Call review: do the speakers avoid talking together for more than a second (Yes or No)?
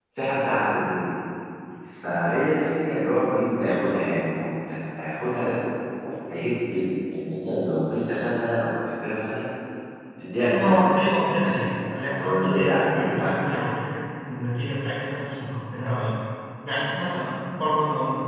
No